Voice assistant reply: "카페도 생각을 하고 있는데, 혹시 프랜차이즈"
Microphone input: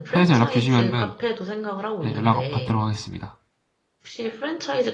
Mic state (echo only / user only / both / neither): both